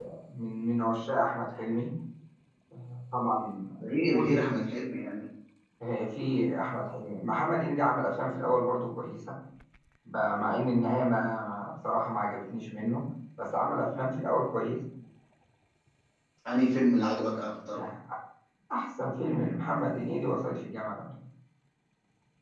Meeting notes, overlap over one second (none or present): none